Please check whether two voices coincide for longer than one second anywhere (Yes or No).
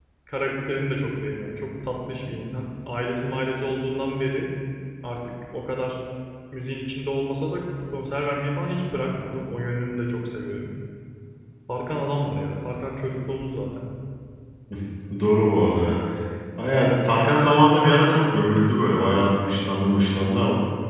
No